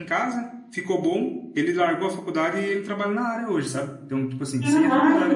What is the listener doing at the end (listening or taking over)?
listening